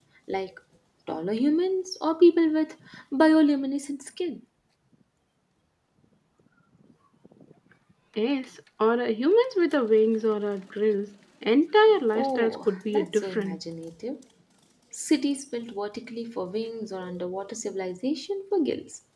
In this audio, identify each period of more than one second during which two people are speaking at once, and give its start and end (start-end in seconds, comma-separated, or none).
12.1-13.6